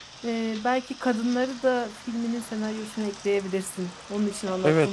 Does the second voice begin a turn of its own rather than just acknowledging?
Yes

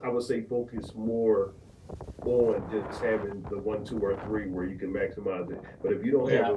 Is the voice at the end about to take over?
No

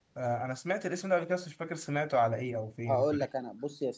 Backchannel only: No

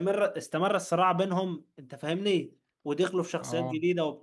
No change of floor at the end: Yes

